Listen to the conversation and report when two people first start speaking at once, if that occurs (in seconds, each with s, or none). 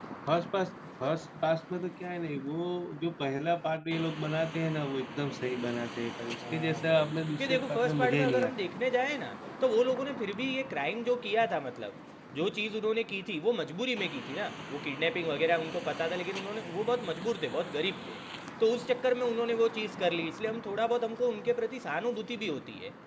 6.4 s